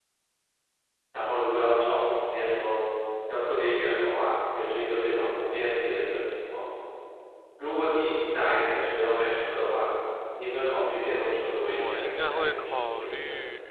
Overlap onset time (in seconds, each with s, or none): 11.7 s